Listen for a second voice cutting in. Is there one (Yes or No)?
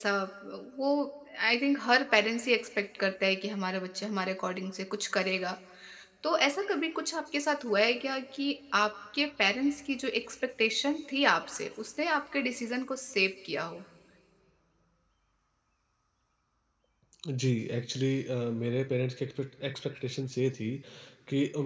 No